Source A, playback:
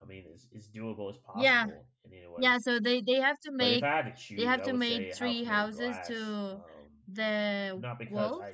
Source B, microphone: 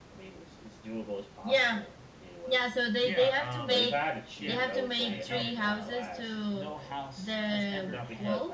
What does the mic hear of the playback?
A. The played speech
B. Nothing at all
A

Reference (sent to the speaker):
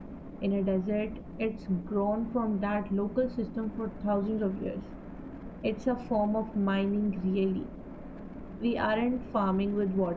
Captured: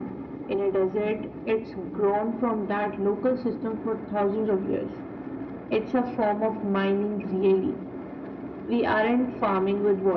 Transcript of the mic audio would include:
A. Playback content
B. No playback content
A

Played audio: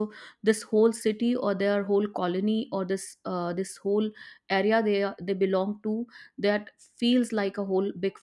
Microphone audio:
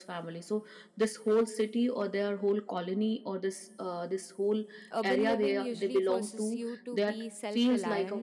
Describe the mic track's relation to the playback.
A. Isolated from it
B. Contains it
B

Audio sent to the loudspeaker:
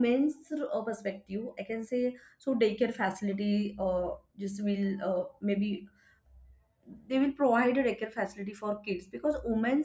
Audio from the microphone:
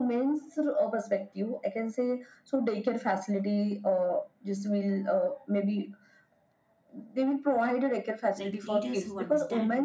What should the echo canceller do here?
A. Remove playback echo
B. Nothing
A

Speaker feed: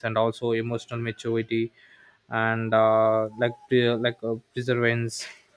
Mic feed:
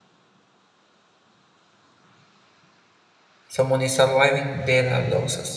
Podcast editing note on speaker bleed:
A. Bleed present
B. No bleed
B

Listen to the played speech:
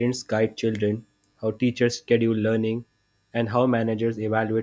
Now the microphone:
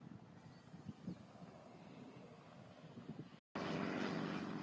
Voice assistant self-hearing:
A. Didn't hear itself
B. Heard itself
A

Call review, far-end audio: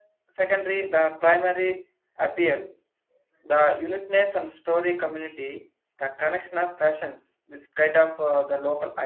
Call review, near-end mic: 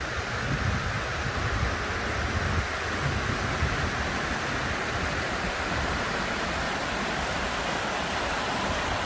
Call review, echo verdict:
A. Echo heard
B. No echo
B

